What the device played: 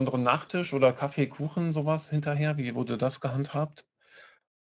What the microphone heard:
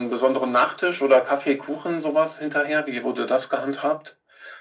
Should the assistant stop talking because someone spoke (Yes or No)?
No